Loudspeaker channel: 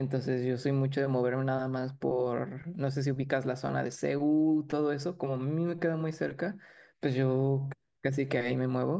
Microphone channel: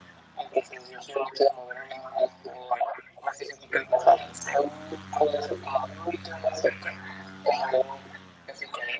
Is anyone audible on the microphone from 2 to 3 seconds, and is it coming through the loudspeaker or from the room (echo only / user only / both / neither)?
echo only